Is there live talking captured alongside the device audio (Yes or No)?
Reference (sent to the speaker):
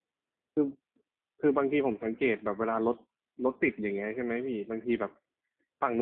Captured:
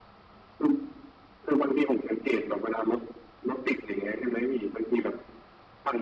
No